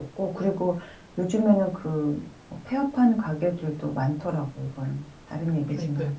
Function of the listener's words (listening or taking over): taking over